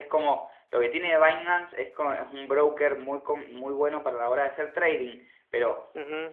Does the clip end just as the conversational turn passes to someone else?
No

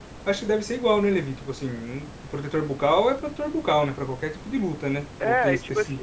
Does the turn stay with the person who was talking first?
No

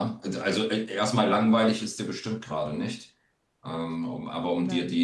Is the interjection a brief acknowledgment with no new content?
Yes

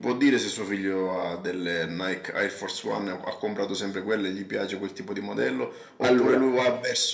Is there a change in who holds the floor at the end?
No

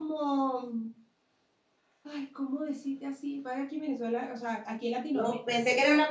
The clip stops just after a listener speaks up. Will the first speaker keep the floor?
No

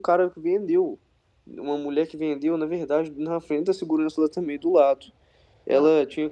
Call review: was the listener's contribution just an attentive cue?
Yes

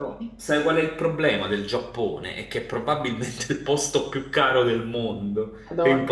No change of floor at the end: Yes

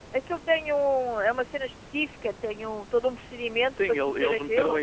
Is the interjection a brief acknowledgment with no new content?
No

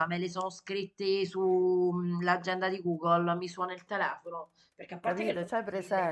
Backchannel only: No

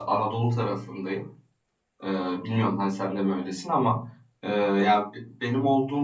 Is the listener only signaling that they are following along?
Yes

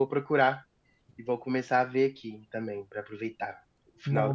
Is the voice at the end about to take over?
Yes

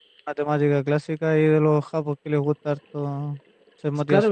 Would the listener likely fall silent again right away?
No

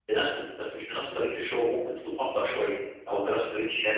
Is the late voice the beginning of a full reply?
No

